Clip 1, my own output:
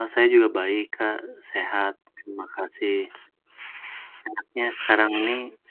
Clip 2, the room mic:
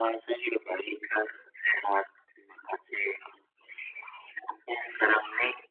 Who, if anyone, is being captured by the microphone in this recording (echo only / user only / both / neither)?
echo only